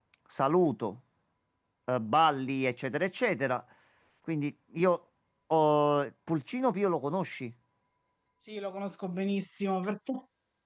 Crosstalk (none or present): none